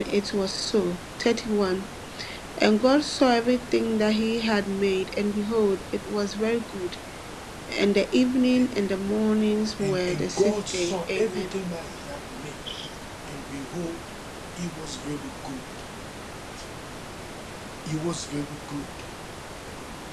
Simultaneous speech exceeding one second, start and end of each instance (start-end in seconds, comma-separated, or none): 9.8-11.5